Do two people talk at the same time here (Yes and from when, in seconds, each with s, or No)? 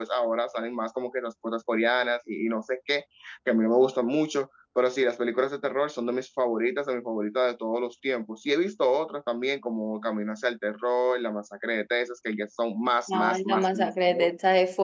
Yes, from 13.1 s